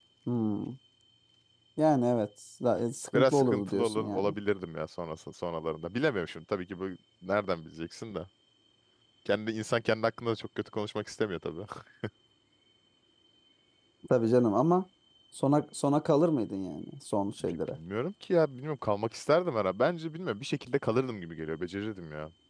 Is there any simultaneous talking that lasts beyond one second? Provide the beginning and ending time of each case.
3.1-4.4

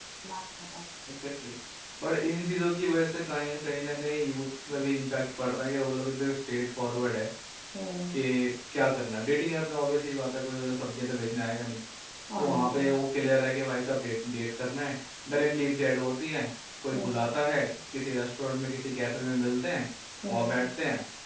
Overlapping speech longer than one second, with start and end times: none

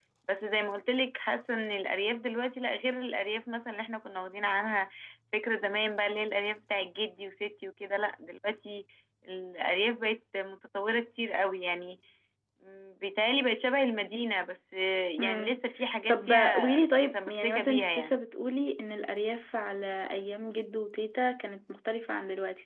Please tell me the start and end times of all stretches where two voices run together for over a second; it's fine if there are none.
16.1-18.2

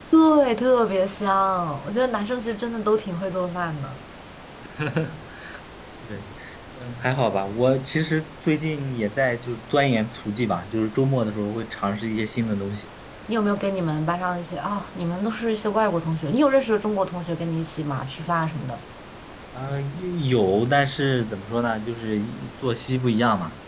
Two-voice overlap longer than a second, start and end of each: none

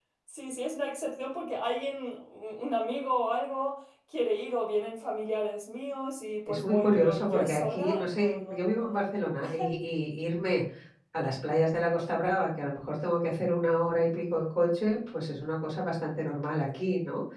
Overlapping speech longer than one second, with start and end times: 6.5-9.0

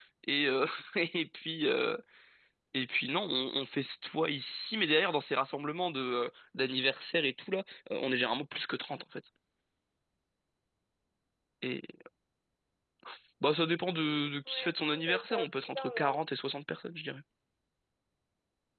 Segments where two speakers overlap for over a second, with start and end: 14.4-16.3

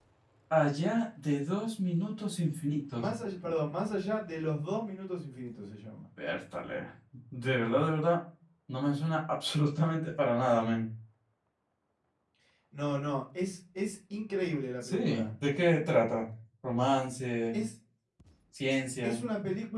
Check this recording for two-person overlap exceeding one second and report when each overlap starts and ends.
none

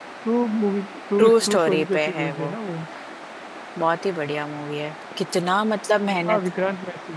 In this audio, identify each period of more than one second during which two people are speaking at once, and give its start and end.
1.2-2.5

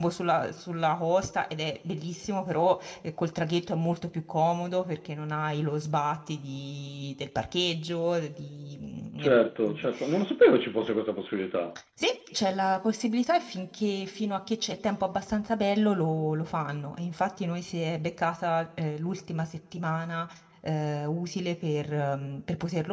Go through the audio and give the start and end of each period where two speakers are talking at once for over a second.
none

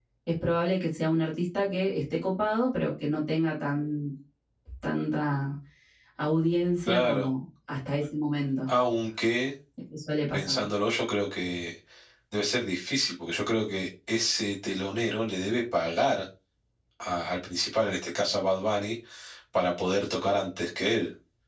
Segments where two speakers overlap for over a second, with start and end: none

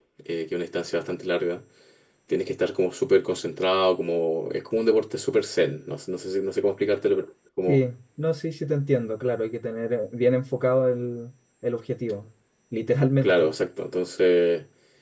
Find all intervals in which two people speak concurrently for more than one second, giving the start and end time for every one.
none

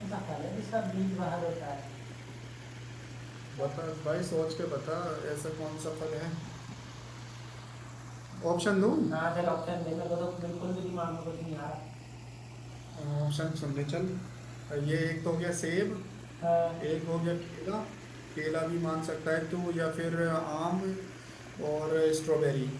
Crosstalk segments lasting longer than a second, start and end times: none

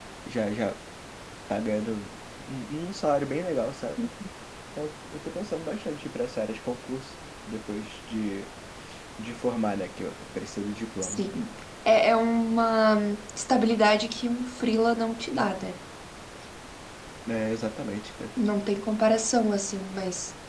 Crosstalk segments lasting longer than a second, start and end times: none

